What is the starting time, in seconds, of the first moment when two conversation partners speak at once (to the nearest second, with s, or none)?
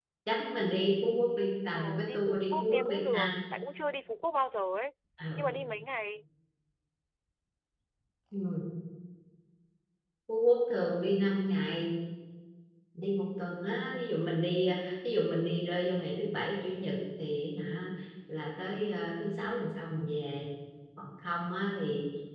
2 s